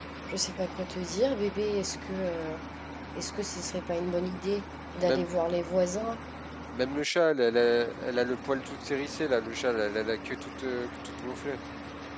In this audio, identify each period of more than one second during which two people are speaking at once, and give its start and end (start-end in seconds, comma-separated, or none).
none